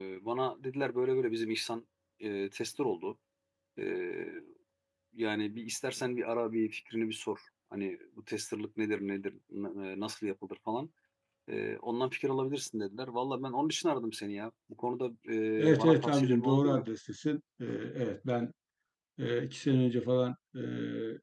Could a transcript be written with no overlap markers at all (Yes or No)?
No